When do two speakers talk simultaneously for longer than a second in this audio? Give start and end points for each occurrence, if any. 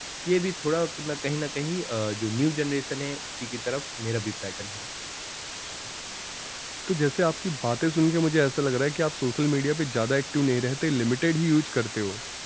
none

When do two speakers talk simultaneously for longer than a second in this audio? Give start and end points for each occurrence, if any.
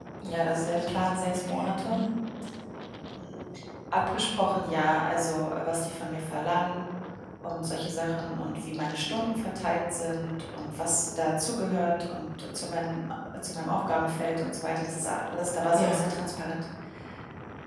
0.6-2.0

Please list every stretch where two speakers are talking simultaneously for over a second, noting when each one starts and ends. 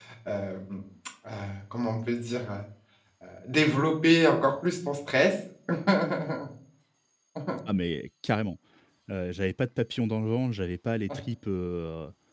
none

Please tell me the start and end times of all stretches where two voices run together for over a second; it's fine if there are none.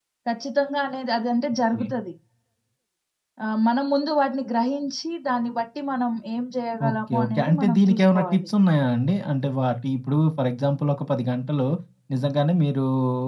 6.9-8.5

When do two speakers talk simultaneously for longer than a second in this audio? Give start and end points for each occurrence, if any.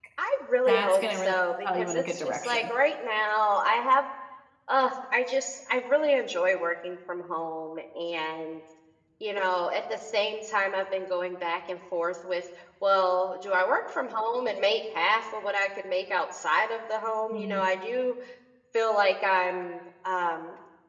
0.7-2.7

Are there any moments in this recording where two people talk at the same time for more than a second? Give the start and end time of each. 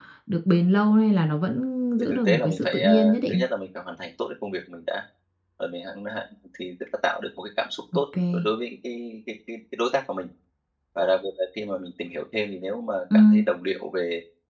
2.0-3.4

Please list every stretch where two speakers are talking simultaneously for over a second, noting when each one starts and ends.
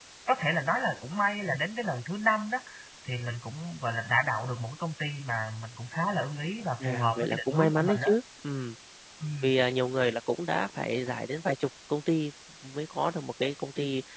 6.8-8.1

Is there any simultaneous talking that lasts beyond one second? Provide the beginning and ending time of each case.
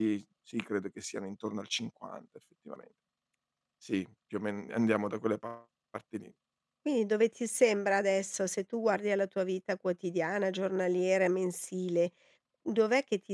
none

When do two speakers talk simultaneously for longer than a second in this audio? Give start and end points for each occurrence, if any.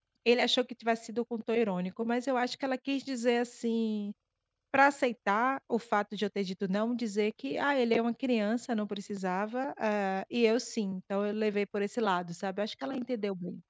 none

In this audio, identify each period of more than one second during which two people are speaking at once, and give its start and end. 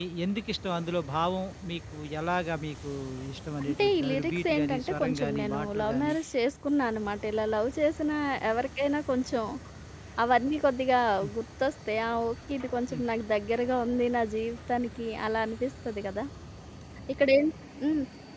3.6-6.1

